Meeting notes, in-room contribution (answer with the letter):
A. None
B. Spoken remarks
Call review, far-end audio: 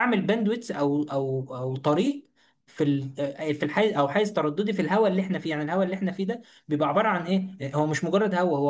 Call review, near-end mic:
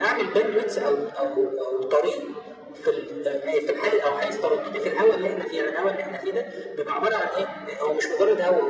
A